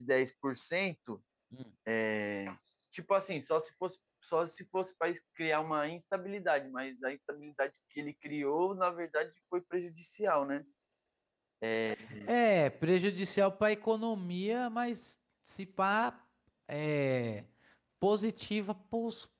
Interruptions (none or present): none